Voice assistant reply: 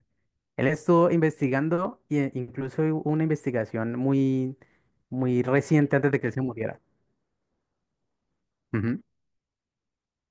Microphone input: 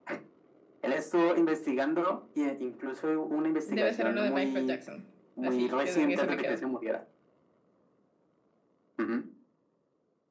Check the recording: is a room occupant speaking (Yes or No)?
Yes